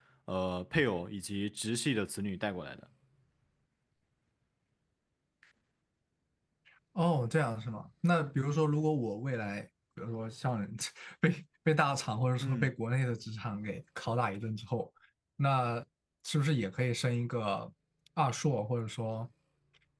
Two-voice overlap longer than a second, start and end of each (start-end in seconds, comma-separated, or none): none